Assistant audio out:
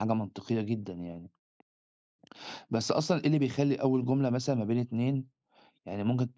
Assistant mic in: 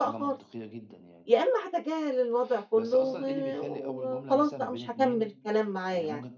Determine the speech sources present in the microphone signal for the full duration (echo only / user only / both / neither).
both